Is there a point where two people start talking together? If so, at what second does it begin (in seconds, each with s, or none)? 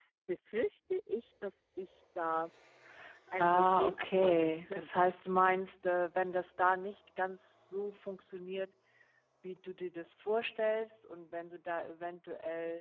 3.4 s